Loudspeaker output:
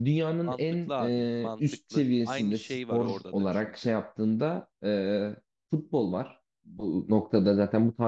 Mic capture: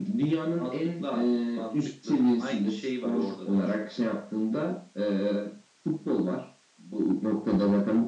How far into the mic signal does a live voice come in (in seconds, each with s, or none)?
none